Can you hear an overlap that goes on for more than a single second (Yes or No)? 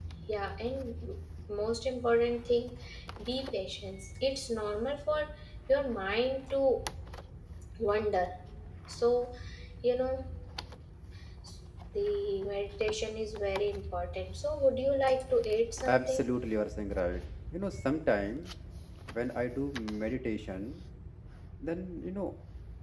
No